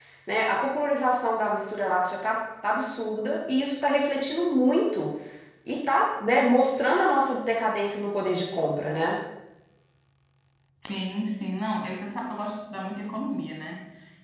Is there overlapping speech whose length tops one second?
No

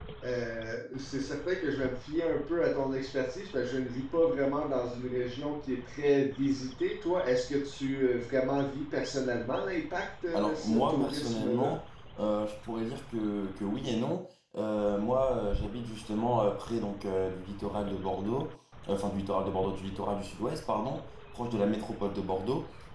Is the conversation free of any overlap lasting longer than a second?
No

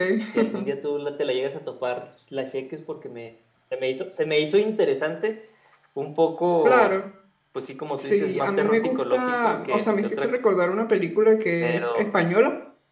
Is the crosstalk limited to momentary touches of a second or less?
No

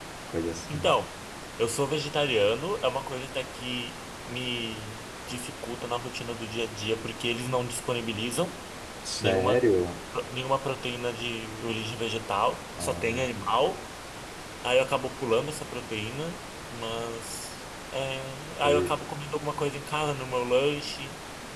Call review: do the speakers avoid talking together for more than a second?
Yes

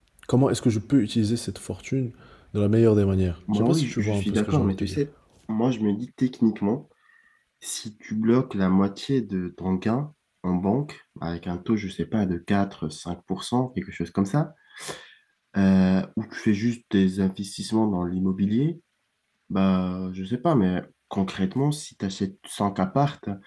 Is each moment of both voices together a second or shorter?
No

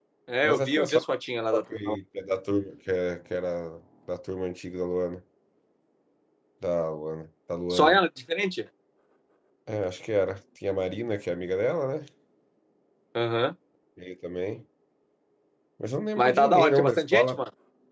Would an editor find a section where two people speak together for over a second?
Yes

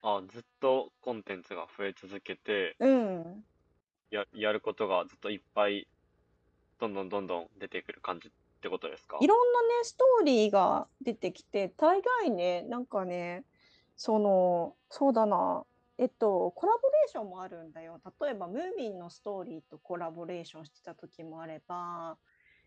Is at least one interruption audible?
No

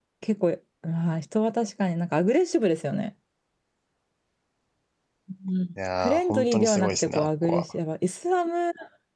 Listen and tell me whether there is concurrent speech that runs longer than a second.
Yes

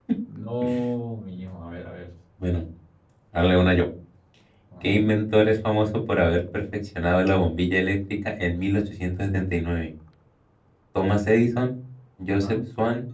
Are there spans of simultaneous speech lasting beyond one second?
No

